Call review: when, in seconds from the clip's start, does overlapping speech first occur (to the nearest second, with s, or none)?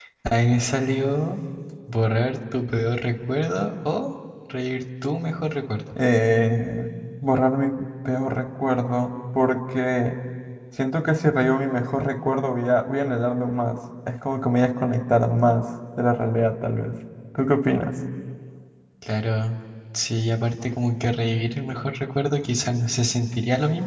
none